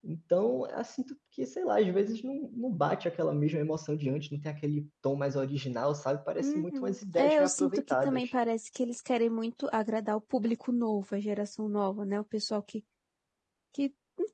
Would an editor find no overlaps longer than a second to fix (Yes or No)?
No